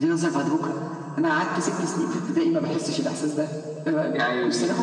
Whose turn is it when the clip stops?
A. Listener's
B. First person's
B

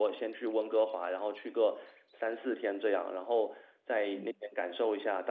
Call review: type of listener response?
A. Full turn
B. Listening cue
B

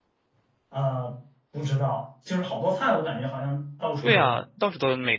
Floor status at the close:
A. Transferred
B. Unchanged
A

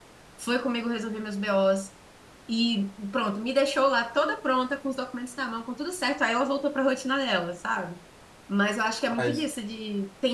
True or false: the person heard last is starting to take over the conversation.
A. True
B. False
B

